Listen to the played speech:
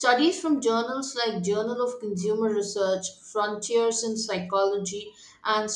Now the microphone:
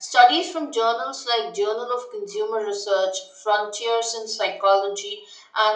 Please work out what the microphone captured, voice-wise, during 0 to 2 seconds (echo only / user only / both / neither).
echo only